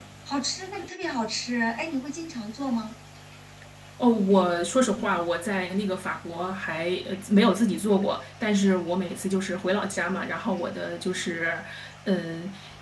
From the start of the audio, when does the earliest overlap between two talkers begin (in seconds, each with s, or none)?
none